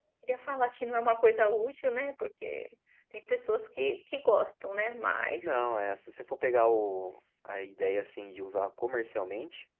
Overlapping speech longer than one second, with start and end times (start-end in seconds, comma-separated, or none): none